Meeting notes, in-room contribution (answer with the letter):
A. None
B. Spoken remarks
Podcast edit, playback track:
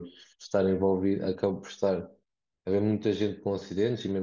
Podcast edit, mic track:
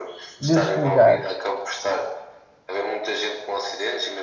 B